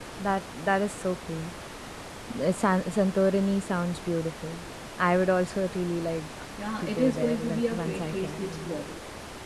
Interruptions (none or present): present